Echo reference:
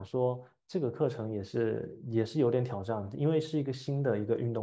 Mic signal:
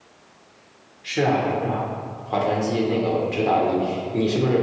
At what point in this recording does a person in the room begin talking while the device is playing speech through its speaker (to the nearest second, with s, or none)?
1 s